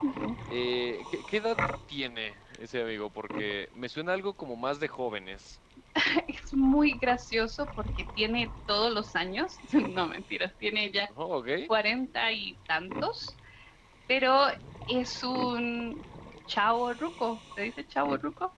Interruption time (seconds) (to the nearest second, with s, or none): none